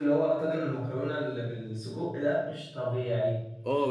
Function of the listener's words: taking over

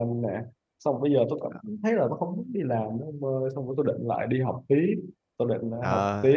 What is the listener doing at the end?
taking over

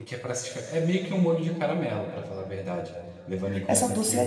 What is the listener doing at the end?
taking over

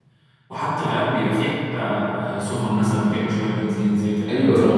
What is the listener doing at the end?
taking over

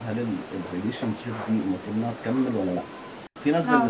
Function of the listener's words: listening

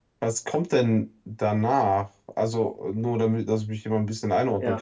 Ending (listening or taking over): taking over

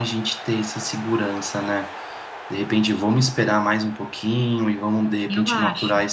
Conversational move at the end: listening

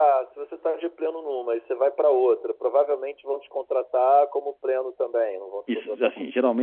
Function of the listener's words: taking over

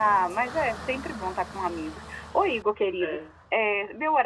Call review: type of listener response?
listening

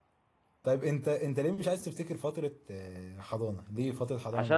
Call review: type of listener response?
taking over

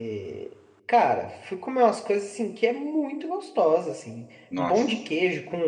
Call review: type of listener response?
listening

